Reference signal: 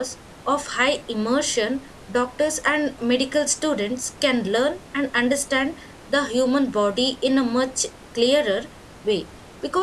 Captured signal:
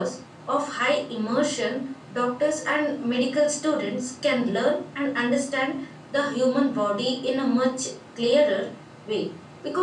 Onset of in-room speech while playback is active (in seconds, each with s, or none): none